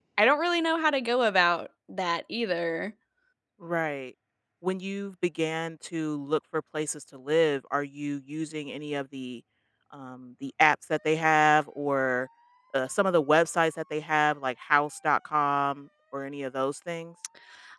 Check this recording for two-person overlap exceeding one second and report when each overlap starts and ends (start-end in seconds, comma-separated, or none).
none